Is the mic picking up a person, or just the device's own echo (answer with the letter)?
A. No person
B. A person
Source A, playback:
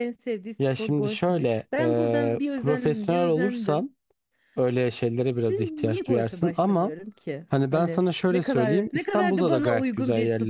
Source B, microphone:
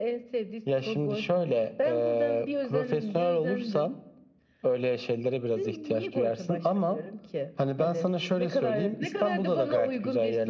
A